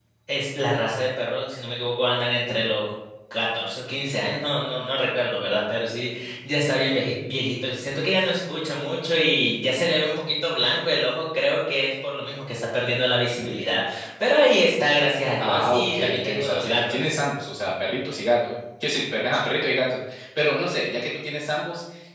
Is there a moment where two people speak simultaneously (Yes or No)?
Yes